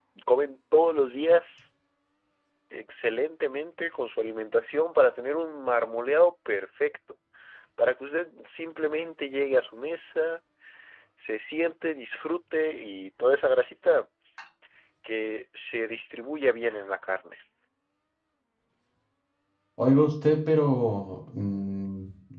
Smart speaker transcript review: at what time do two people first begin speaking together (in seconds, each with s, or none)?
none